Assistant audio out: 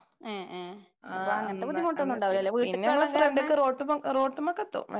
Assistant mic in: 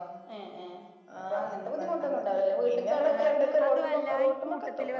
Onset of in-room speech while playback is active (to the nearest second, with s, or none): 3 s